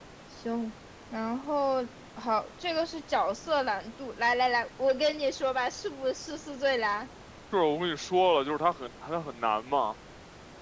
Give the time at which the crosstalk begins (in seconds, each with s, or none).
none